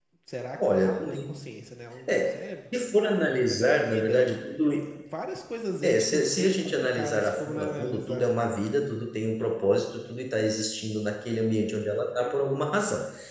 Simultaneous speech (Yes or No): Yes